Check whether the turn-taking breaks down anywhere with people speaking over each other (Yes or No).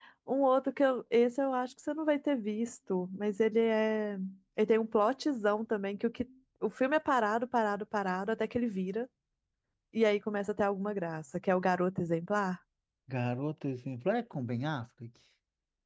No